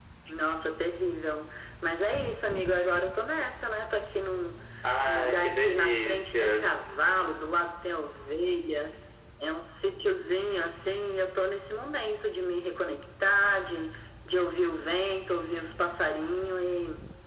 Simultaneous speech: Yes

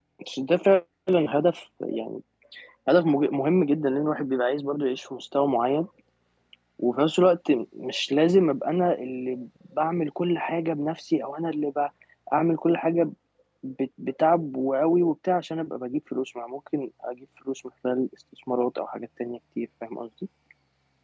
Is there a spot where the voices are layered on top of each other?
No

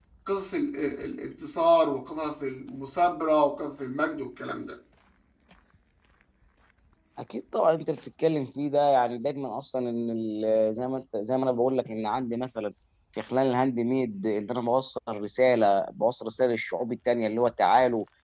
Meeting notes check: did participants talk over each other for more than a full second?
No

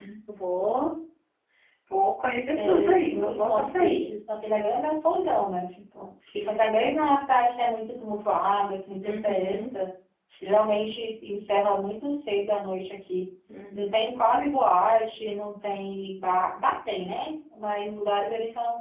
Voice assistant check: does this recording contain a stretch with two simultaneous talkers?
Yes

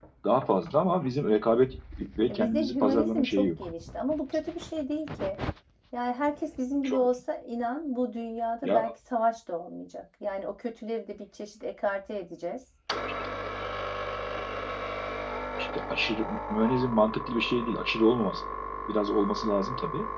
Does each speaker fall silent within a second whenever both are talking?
No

